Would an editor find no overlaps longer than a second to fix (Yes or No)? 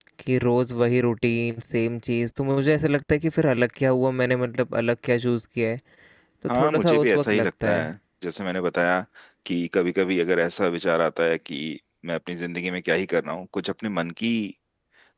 No